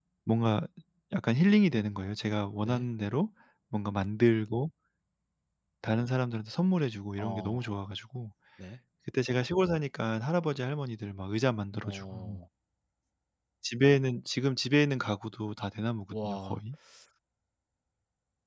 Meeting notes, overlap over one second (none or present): none